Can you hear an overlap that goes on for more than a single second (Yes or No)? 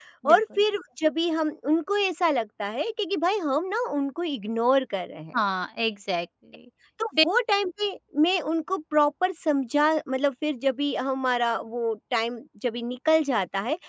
No